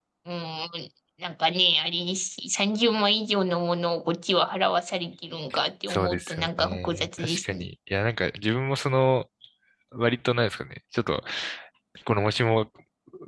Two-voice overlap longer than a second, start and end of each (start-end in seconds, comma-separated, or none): 5.9-7.7